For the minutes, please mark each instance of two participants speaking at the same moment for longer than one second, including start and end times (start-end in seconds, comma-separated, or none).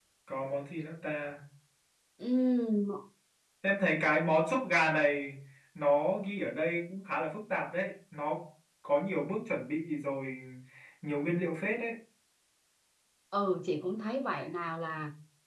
none